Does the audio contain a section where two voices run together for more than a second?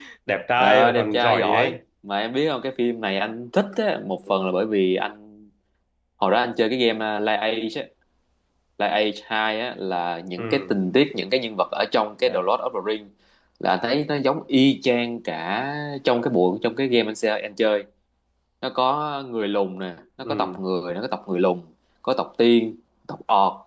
Yes, from 0.6 s

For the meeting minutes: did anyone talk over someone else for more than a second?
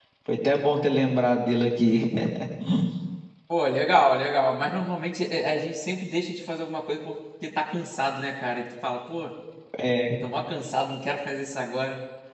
No

